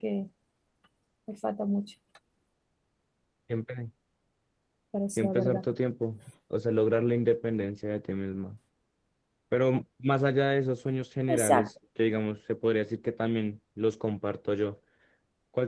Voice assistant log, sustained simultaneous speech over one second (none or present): none